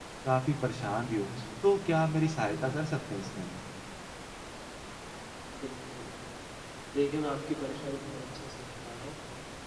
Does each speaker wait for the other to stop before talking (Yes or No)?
Yes